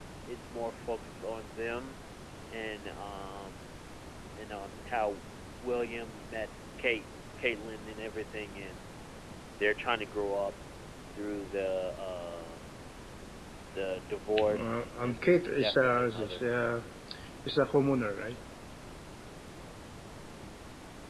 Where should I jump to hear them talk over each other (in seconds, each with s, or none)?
14.5 s